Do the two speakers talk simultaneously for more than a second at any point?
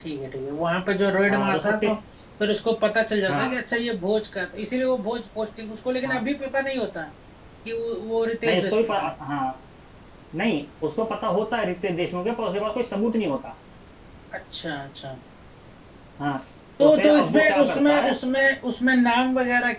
Yes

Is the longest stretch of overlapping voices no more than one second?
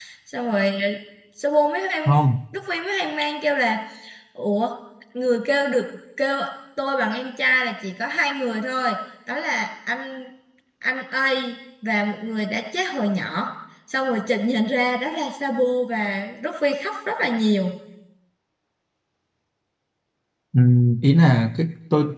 Yes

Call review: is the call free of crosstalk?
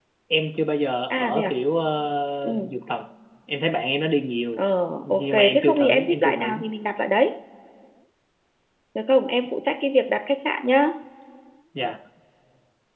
No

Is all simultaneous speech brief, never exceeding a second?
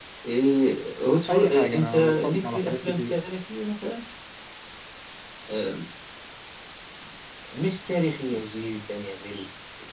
No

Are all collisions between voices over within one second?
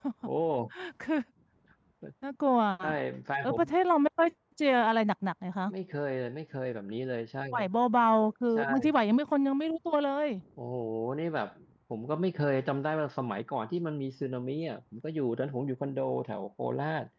Yes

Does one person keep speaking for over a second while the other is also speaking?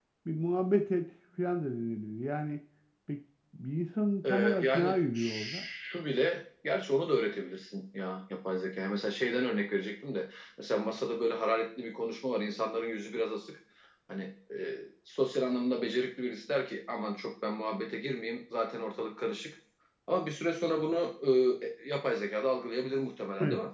Yes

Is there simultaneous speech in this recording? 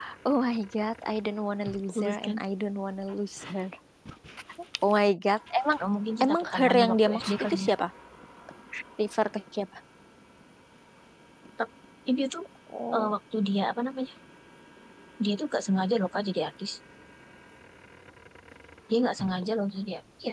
Yes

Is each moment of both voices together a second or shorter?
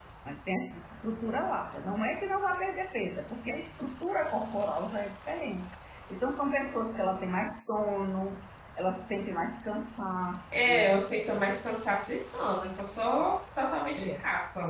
Yes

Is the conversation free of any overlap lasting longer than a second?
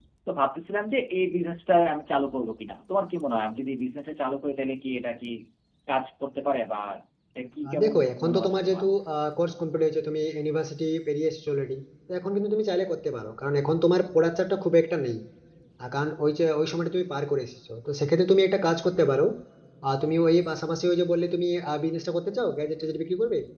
No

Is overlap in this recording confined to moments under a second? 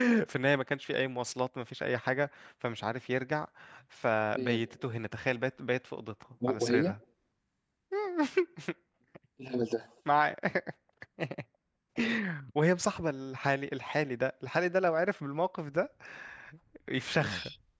Yes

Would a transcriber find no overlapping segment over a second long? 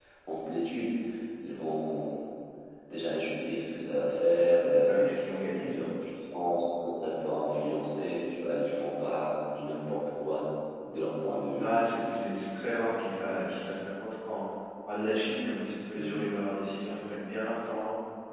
Yes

